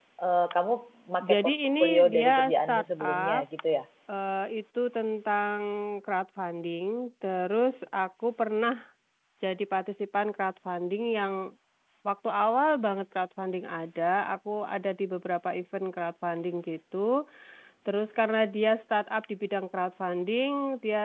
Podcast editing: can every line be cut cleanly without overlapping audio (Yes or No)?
No